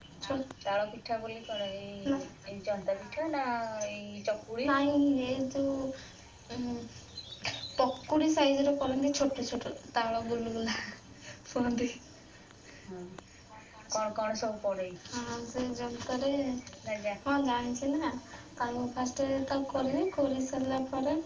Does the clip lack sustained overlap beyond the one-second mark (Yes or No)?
Yes